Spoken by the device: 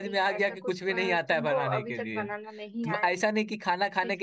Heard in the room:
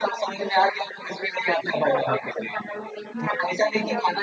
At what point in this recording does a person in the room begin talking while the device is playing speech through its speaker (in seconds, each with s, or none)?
3.1 s